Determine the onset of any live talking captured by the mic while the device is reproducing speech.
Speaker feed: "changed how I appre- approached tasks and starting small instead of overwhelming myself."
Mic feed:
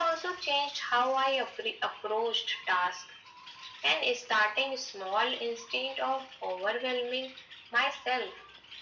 none

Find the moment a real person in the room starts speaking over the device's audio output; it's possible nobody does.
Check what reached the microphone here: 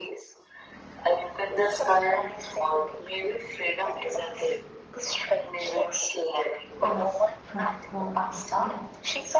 6.8 s

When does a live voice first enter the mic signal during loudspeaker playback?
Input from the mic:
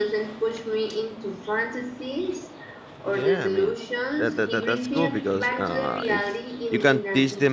3.0 s

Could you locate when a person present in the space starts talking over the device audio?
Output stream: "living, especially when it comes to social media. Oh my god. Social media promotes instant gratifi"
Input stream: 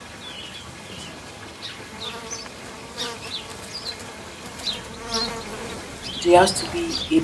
6.2 s

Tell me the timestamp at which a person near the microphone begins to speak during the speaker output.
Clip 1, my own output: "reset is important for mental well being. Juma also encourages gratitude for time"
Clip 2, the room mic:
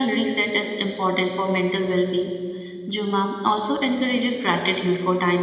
none

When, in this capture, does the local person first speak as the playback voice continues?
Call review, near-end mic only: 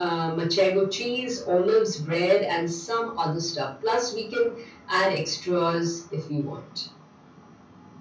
none

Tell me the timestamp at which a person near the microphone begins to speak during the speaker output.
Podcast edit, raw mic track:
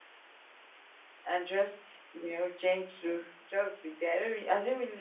1.2 s

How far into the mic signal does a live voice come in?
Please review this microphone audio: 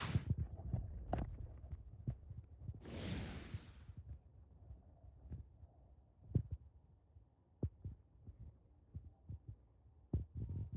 none

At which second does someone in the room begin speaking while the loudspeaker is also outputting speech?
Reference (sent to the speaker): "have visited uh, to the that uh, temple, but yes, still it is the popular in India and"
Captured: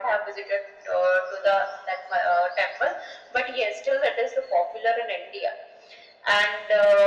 none

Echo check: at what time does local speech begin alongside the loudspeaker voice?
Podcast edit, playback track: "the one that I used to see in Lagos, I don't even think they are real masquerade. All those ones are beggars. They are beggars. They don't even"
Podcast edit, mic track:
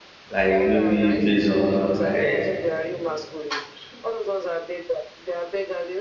0.3 s

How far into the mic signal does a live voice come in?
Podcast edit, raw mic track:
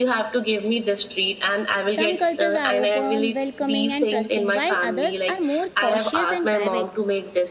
1.9 s

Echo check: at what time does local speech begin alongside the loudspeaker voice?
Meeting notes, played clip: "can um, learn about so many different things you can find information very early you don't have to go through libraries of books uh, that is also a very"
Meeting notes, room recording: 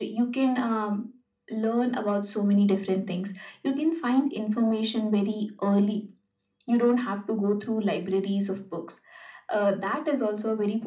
none

